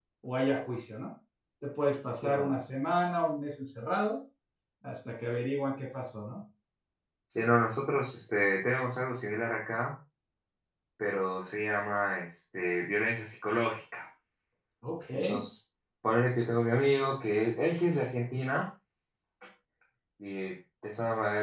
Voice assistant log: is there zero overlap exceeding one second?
Yes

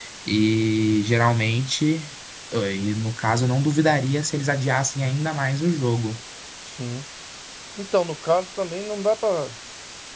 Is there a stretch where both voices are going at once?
No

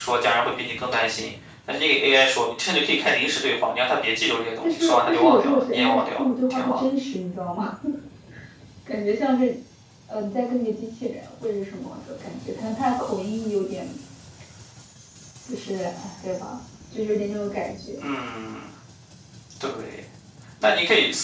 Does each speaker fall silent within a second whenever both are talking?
No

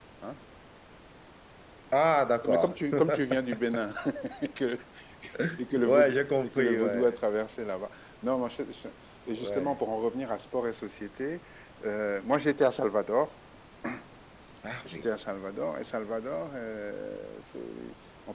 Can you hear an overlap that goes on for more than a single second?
Yes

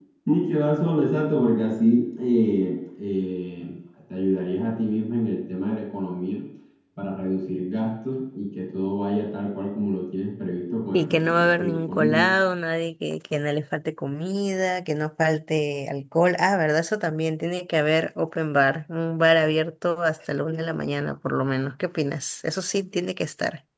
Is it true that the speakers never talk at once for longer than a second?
No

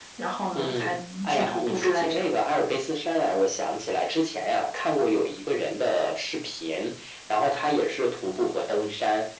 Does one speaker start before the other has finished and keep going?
Yes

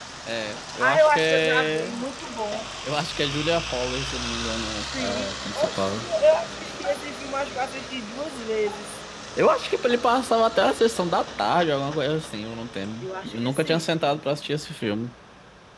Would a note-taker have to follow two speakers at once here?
Yes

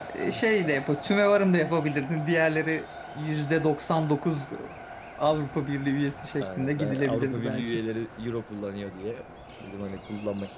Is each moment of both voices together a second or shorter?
No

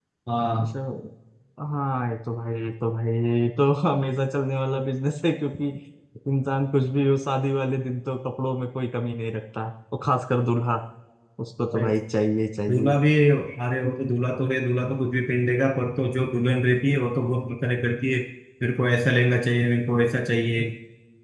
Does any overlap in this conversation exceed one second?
No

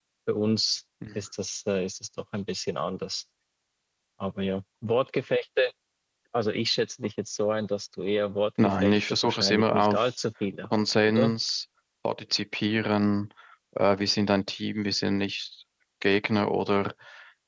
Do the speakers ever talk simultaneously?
Yes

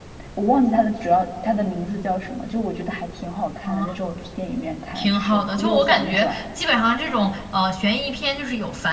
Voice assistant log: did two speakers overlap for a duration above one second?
Yes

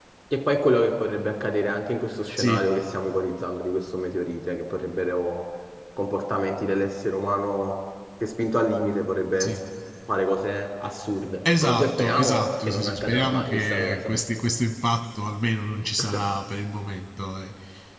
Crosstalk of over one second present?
Yes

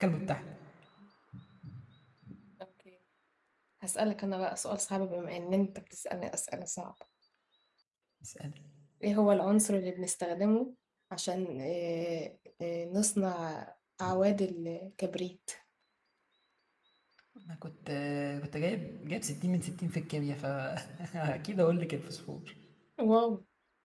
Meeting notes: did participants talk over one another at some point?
No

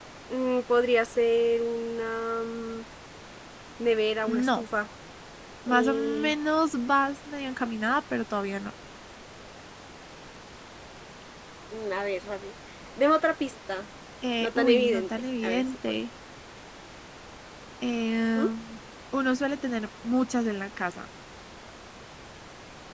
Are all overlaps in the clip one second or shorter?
No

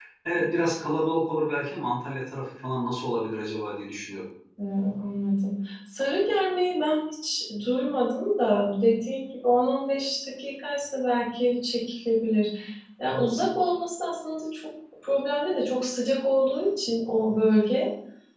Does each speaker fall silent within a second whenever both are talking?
Yes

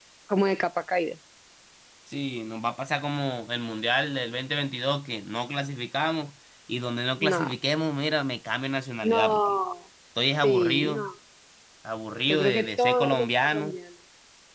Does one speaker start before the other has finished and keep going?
Yes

